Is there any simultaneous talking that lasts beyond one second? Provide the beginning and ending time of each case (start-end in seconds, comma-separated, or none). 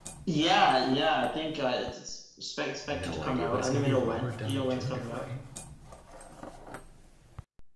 2.9-5.2